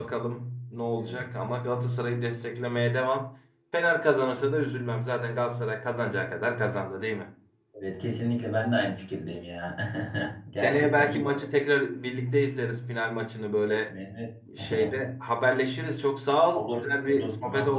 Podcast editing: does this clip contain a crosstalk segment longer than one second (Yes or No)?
Yes